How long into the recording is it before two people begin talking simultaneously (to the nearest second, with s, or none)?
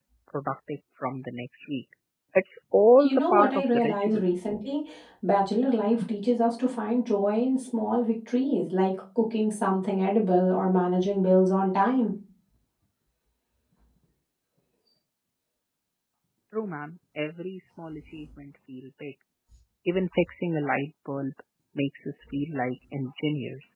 3 s